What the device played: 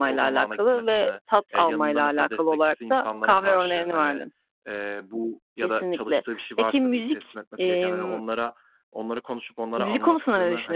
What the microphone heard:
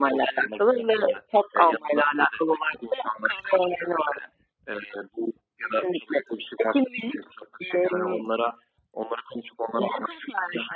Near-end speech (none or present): none